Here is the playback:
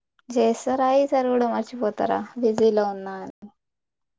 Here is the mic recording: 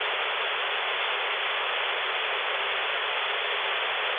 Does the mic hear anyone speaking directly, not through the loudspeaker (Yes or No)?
No